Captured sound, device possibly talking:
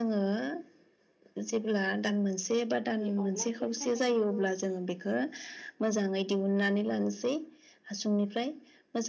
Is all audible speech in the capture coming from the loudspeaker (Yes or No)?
No